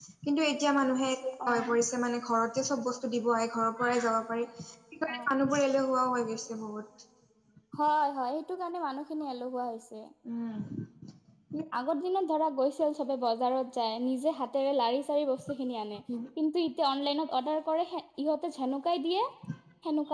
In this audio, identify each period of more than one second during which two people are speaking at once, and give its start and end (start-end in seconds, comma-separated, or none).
none